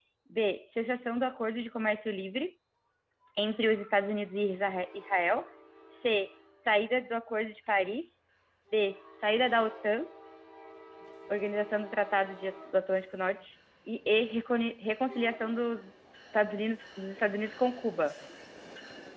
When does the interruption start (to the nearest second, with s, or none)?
none